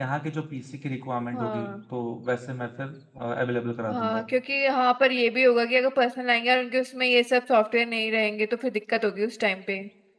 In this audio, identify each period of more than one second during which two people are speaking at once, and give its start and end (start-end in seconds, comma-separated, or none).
none